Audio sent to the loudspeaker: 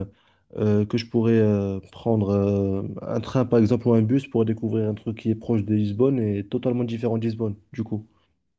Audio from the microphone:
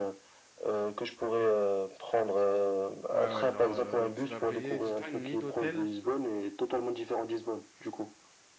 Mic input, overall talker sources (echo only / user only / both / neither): both